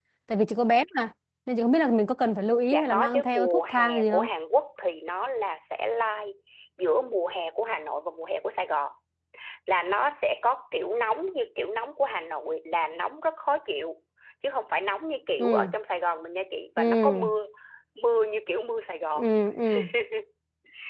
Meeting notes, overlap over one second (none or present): present